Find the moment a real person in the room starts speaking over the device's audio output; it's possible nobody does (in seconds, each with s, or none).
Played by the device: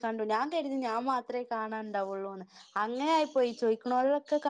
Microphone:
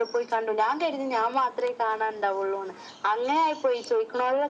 none